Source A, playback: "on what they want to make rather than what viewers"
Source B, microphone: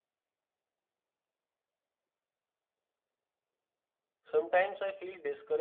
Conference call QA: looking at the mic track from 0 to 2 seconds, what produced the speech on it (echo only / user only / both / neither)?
neither